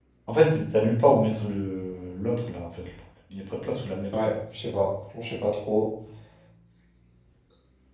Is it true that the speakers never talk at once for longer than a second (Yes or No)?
Yes